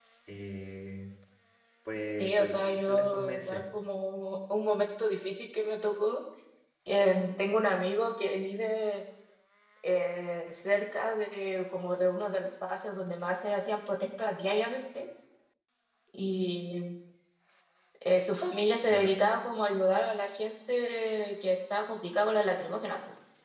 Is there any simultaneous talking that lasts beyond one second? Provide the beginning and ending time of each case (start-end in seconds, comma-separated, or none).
2.2-3.6